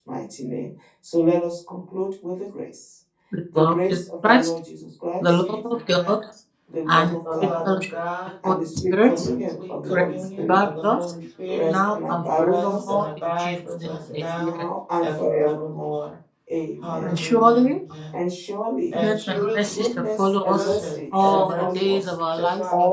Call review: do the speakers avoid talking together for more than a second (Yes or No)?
No